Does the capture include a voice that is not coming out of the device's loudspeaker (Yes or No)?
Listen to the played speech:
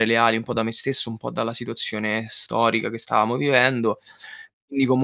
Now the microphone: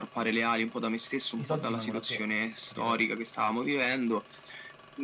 Yes